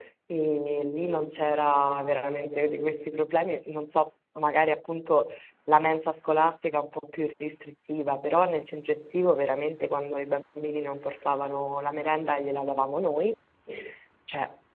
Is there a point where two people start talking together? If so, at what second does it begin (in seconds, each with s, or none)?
none